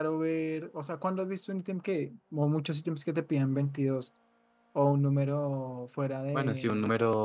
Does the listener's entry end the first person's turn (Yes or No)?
Yes